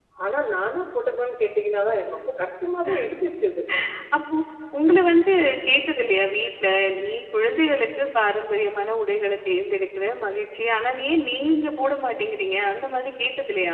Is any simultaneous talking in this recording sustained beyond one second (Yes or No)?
No